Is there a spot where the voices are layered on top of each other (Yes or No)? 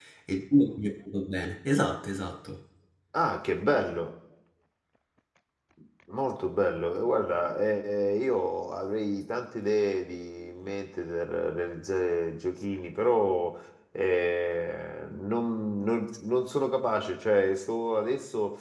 No